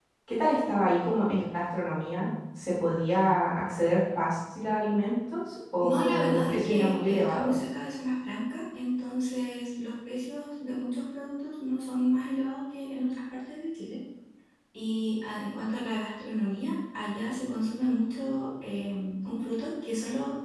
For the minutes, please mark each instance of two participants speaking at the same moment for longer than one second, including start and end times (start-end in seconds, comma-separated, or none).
5.8-7.5